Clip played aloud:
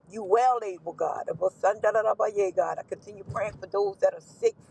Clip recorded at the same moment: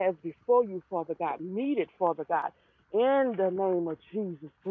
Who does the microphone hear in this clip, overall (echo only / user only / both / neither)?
user only